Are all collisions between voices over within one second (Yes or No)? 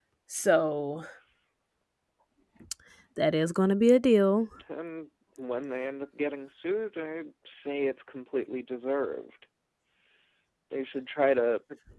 Yes